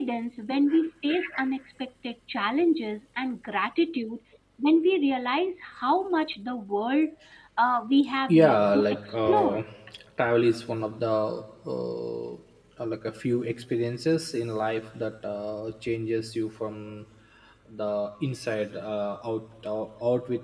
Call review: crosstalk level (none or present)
present